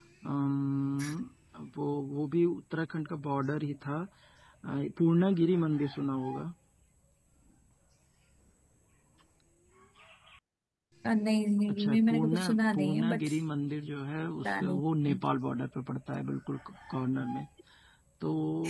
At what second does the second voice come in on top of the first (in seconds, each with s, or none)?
11.7 s